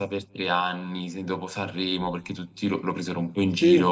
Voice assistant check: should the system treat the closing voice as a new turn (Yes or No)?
No